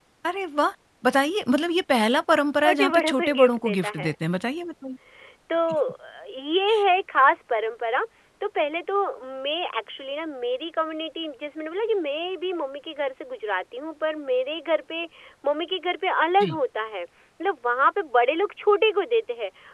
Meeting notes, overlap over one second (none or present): present